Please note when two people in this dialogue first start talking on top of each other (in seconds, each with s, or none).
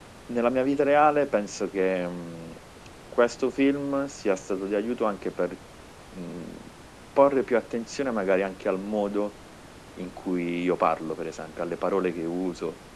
none